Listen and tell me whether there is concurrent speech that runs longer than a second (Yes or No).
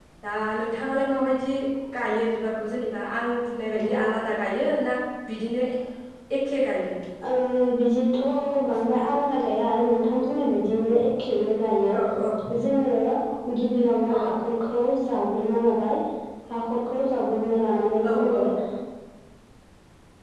No